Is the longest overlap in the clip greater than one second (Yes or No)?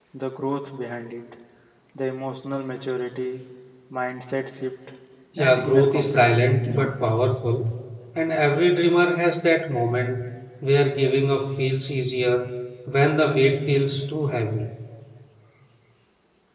Yes